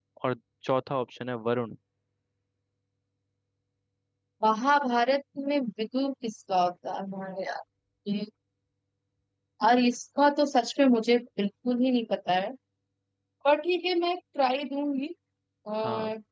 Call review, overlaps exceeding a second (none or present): none